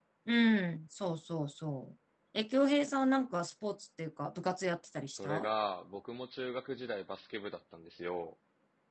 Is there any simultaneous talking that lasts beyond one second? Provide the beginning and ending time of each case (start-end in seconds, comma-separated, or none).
none